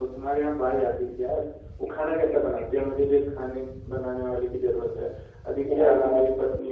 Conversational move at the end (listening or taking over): listening